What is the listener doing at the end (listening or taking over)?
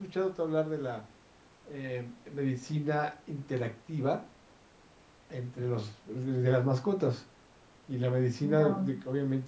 listening